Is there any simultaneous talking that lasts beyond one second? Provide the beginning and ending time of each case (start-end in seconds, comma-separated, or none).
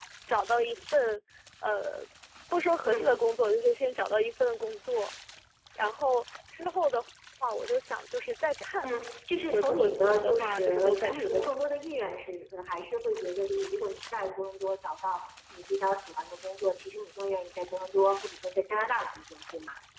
9.4-11.5